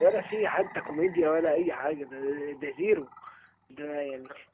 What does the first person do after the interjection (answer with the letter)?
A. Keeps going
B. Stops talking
A